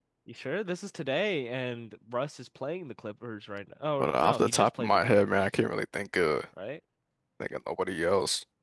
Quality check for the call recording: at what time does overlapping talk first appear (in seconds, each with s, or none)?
4.0 s